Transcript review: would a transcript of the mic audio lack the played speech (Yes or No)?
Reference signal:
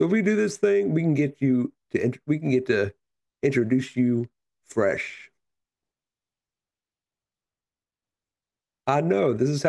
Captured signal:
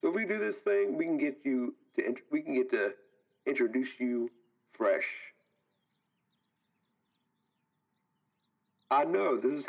No